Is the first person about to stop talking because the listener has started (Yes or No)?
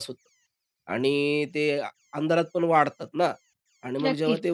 No